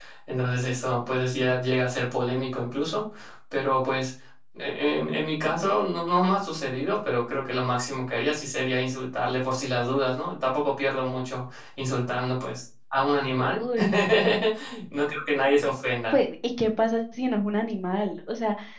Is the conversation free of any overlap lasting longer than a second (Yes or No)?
Yes